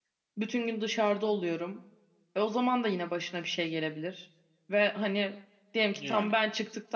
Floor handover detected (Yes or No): No